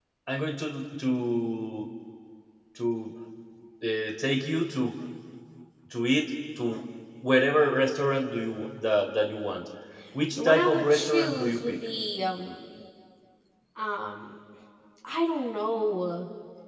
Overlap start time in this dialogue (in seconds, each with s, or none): 10.3 s